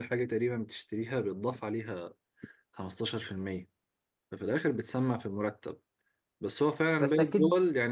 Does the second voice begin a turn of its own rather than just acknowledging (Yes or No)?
No